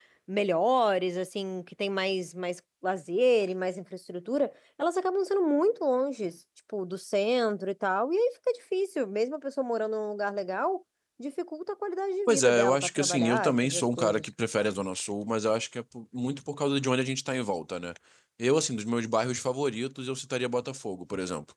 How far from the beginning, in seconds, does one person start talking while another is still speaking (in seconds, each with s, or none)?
12.3 s